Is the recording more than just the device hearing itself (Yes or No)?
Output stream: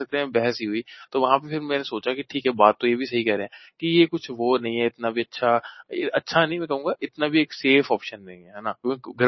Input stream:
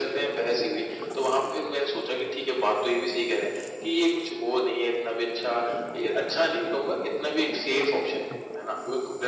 No